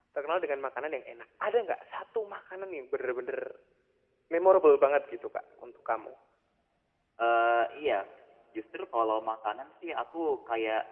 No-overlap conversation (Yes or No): Yes